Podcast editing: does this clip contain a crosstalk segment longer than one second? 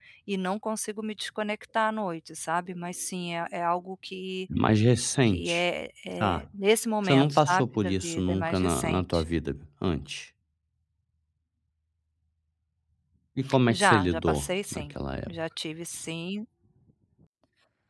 Yes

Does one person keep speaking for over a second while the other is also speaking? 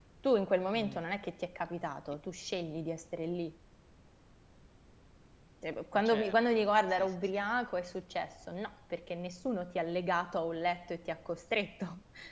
Yes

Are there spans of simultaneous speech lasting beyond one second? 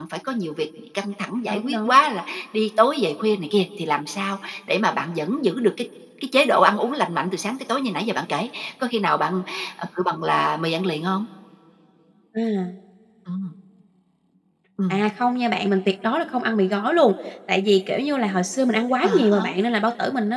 No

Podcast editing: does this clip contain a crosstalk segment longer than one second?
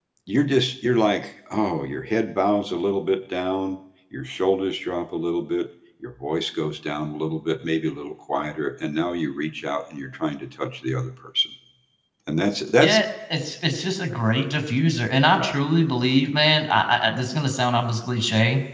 No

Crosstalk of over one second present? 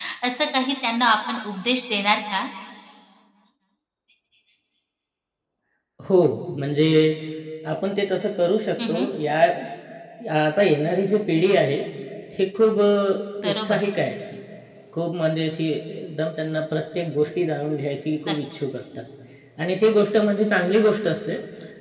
No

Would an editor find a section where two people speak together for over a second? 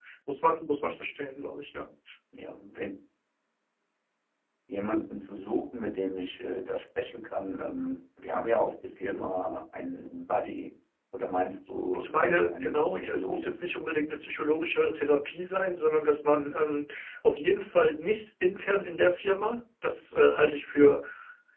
Yes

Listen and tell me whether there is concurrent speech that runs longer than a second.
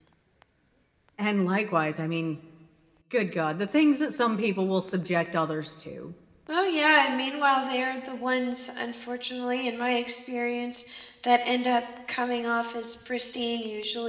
No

